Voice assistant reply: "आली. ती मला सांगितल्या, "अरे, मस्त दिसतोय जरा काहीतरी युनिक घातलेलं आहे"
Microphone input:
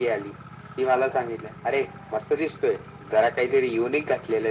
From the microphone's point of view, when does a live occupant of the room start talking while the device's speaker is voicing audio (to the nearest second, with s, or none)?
none